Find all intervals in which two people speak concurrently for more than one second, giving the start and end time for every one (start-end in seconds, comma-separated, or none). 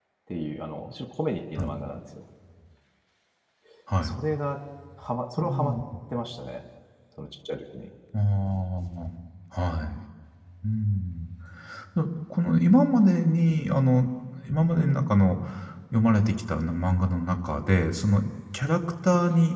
none